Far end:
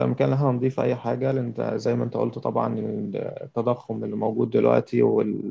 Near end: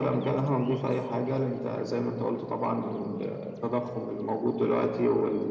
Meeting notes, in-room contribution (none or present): none